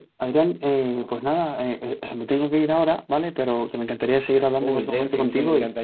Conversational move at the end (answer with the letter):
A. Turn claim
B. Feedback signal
A